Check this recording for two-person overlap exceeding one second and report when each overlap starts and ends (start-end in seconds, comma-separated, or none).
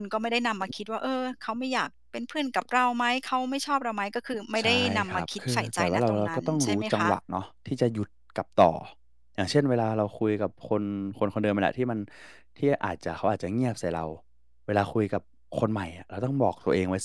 4.6-7.1